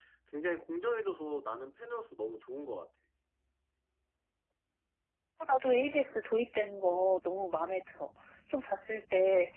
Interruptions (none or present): none